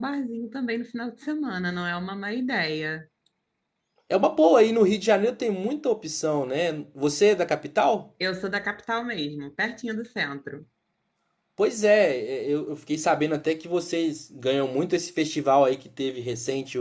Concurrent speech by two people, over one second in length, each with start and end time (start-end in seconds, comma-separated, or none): none